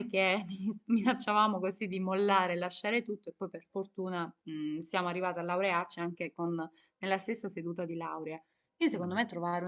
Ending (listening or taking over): listening